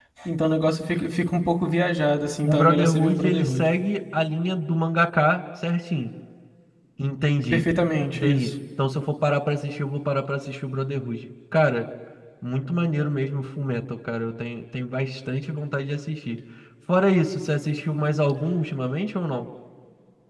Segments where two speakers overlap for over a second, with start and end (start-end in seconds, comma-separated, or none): 2.4-3.6